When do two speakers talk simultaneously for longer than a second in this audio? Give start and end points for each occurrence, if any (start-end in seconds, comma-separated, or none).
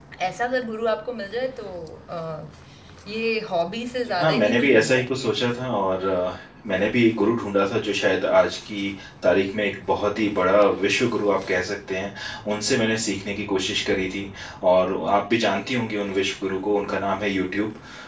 4.1-5.6